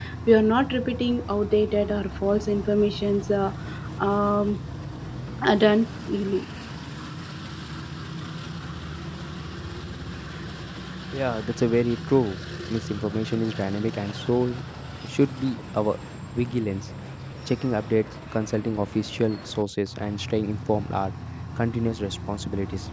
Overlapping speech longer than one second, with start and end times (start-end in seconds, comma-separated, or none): none